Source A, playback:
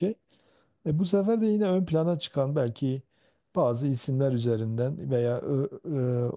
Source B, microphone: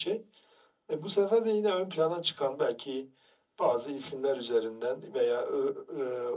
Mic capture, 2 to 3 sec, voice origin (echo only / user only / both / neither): echo only